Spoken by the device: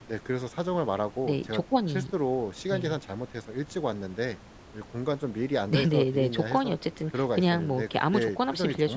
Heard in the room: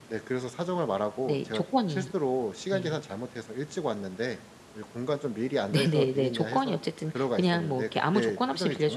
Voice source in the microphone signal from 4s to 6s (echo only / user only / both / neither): echo only